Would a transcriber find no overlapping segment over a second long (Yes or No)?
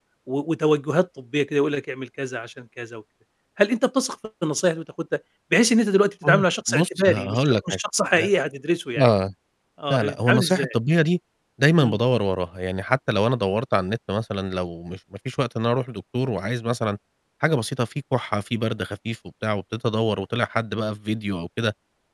No